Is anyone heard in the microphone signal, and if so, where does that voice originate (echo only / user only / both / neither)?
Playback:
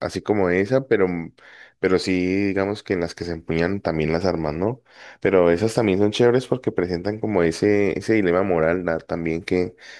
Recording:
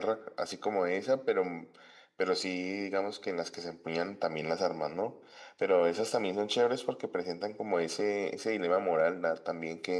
echo only